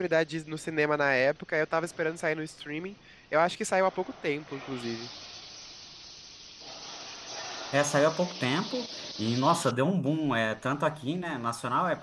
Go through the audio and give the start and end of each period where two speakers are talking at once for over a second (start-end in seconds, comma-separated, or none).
none